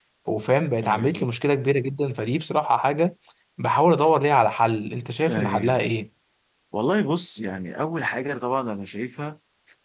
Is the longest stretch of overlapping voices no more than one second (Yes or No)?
Yes